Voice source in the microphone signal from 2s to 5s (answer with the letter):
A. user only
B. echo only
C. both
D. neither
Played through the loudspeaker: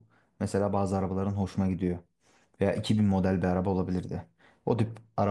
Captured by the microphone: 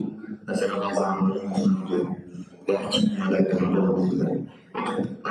B